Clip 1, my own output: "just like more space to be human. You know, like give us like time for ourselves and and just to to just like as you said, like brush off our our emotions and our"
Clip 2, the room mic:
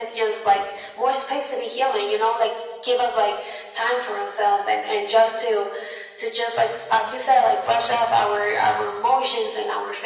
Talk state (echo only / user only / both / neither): echo only